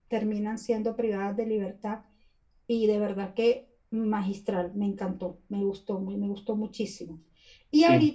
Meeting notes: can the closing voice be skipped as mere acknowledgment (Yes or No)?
Yes